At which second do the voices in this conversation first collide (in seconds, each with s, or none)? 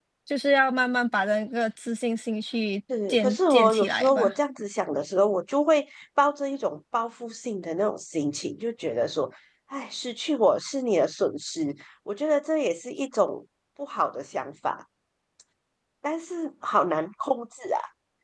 2.9 s